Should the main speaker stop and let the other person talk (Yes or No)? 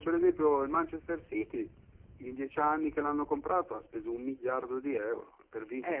Yes